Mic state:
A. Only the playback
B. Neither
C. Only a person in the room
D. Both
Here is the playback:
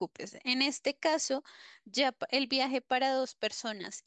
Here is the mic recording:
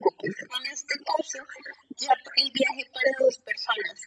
A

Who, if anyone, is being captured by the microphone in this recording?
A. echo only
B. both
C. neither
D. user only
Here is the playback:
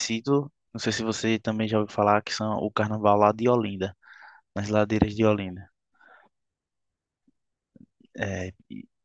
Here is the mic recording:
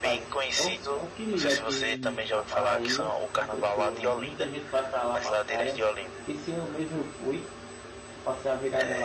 B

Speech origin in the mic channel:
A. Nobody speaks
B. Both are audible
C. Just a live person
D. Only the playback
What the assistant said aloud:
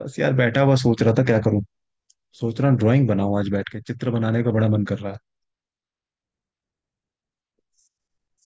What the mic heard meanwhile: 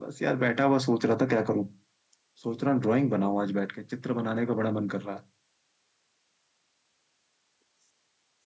D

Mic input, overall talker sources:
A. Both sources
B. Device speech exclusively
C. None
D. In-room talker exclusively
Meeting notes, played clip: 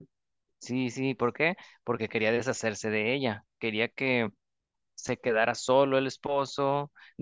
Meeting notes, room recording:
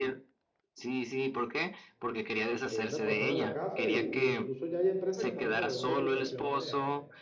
A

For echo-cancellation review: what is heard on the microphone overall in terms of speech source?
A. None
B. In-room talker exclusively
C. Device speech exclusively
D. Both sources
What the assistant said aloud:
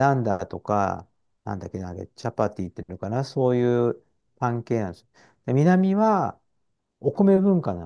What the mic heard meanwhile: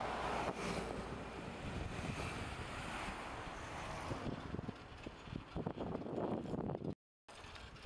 A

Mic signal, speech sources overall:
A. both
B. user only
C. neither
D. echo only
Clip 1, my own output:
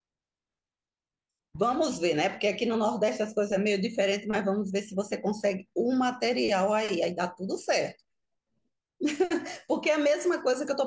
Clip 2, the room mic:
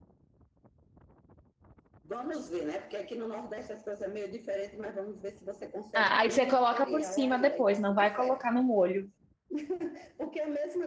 A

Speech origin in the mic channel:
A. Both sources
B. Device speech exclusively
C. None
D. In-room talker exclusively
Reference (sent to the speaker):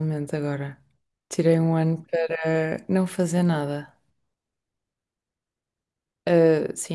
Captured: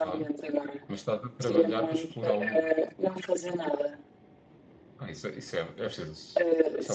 A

